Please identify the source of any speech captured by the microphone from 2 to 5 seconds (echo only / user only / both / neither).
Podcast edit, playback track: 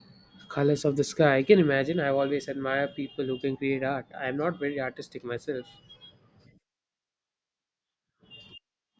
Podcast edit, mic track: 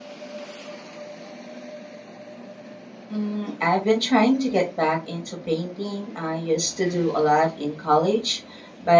user only